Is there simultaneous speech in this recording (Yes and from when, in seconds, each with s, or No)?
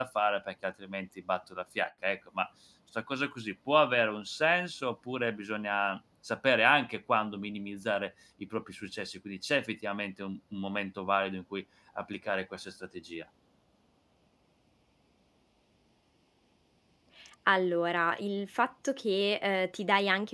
No